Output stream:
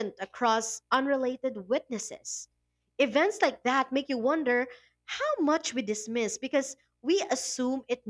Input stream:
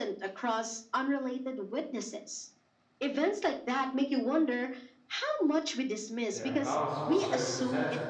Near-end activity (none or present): present